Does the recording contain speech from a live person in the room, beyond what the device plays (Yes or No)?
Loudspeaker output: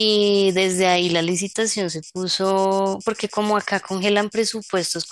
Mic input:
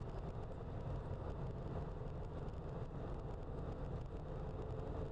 No